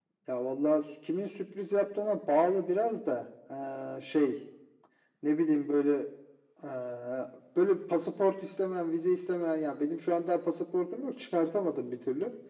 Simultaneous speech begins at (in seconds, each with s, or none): none